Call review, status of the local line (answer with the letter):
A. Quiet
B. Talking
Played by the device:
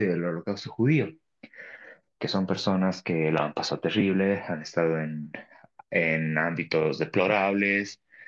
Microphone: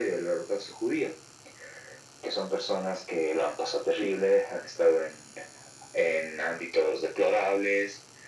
A